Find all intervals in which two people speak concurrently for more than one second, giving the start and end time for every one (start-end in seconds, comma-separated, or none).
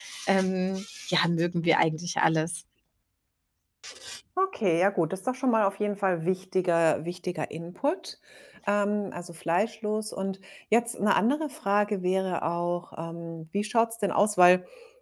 none